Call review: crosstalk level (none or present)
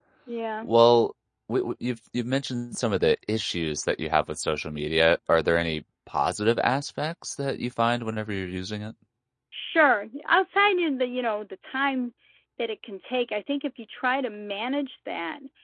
none